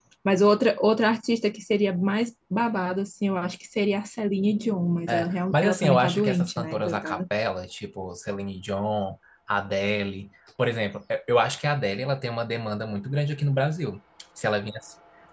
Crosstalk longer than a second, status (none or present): present